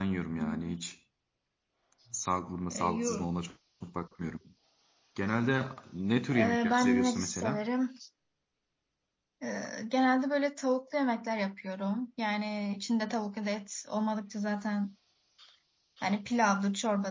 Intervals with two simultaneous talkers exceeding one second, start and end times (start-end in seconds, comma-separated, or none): 6.3-7.7